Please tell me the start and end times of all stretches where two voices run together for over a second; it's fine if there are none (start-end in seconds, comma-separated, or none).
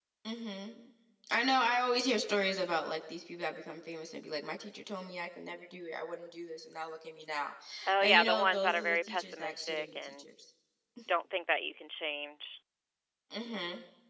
8.0-10.2